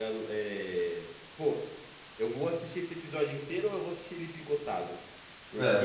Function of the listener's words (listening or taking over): listening